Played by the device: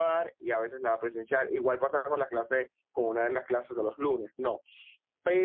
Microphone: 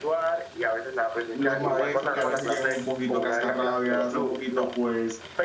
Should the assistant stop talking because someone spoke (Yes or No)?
Yes